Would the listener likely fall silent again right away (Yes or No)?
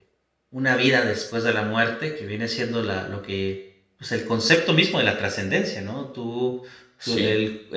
Yes